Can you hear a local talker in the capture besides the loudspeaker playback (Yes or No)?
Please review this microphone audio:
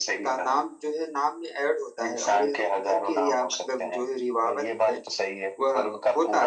Yes